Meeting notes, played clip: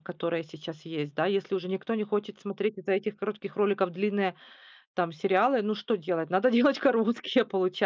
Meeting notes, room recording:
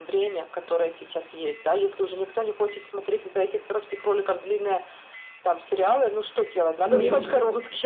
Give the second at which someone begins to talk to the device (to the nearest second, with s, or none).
7 s